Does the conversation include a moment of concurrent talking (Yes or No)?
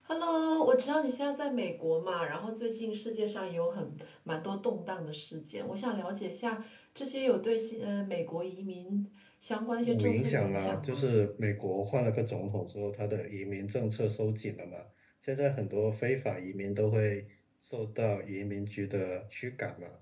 Yes